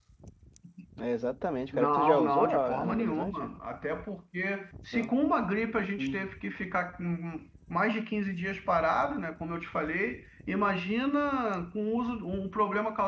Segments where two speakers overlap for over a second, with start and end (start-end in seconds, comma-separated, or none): 1.7-3.5